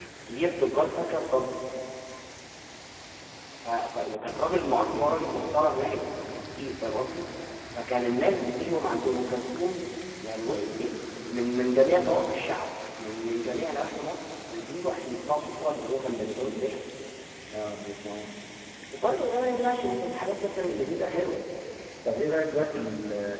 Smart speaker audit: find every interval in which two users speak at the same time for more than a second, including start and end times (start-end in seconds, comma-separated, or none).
none